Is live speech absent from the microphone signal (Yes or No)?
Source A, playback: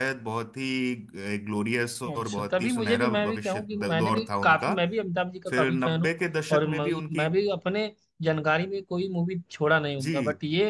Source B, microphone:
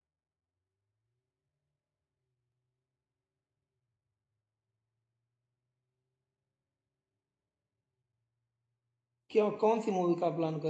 No